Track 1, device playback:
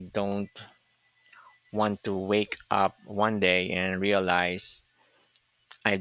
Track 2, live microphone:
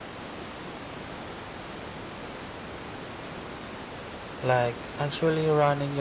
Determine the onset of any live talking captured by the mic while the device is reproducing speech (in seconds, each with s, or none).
4.4 s